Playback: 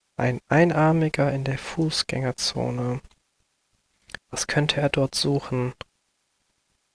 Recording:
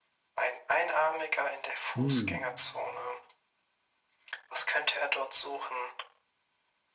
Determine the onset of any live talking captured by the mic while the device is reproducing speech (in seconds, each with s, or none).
2.0 s